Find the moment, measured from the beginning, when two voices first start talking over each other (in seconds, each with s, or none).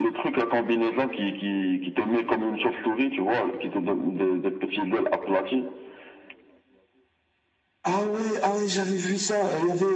none